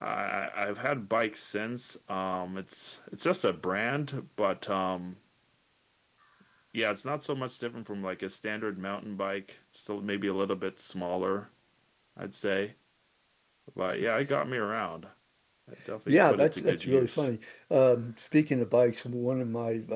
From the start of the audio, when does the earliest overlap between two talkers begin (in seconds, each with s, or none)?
16.1 s